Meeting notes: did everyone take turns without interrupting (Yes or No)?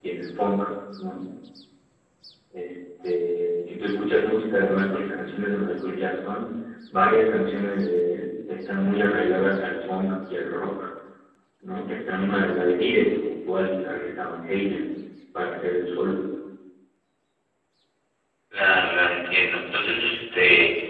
Yes